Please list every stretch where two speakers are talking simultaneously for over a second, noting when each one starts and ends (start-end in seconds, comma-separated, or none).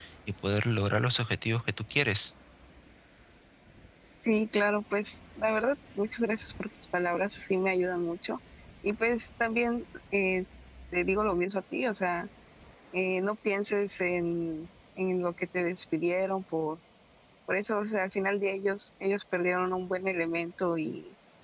none